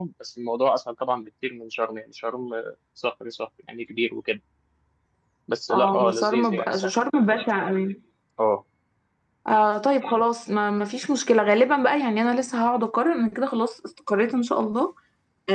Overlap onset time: 5.7 s

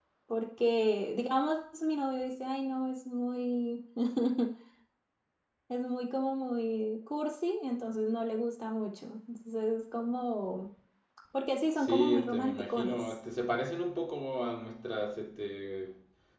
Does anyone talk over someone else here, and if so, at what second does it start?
11.8 s

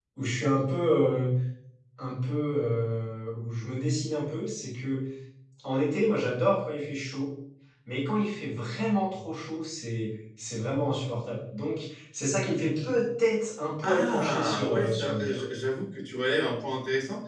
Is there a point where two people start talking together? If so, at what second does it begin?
13.8 s

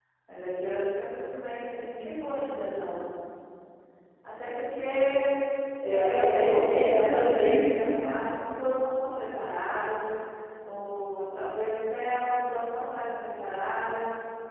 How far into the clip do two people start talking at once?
5.9 s

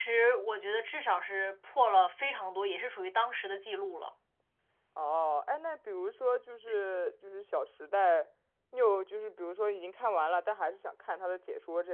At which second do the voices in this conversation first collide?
none

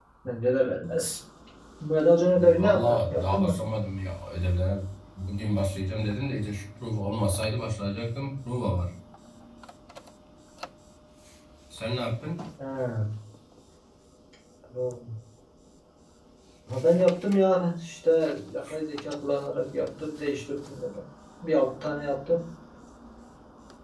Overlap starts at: 2.3 s

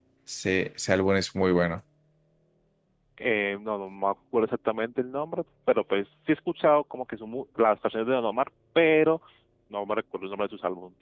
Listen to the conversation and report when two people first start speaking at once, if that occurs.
none

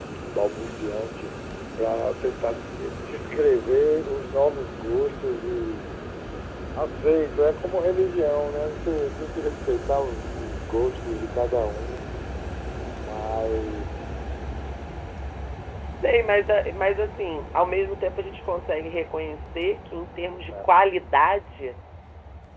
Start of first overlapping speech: none

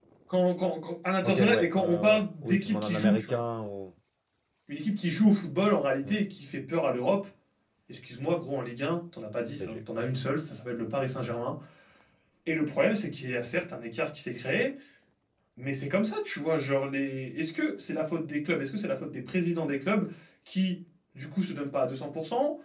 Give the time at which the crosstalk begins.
1.2 s

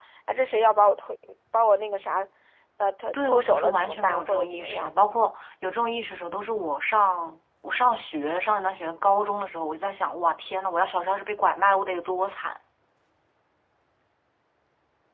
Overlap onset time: 3.1 s

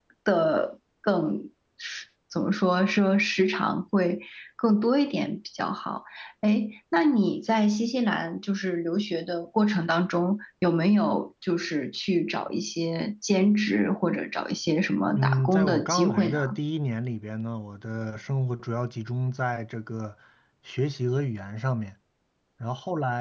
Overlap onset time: 15.2 s

